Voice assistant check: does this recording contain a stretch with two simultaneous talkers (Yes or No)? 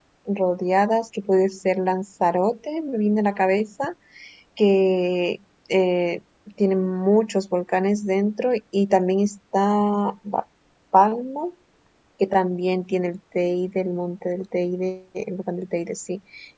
No